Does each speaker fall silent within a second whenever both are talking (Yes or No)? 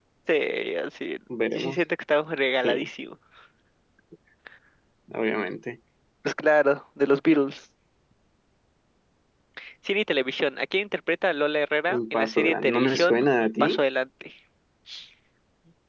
No